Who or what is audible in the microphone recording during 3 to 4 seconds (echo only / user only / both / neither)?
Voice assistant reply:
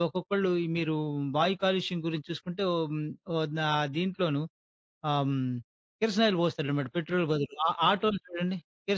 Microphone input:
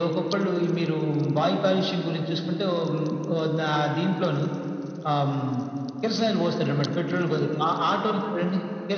echo only